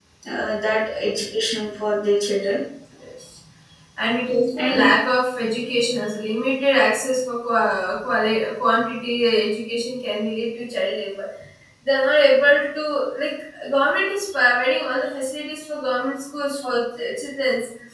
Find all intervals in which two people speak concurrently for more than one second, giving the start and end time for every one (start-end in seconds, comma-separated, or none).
none